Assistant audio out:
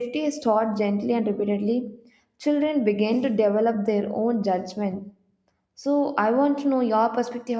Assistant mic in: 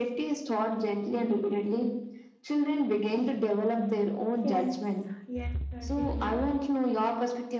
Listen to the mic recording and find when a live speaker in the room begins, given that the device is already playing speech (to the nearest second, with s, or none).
4 s